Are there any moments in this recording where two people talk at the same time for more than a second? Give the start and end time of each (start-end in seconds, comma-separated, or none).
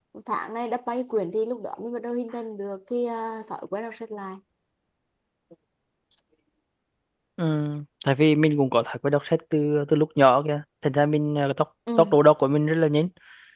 none